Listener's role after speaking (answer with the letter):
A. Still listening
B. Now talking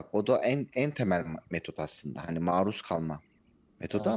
A